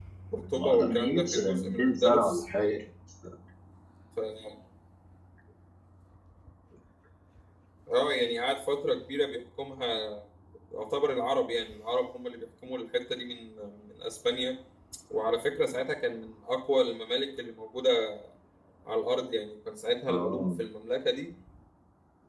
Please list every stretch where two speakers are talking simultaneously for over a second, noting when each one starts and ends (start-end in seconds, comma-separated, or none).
0.6-2.4